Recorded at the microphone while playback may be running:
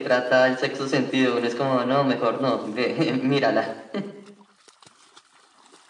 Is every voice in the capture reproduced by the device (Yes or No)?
Yes